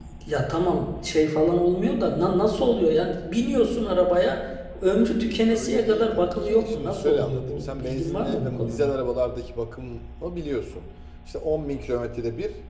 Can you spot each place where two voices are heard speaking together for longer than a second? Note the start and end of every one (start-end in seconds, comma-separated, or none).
5.5-8.9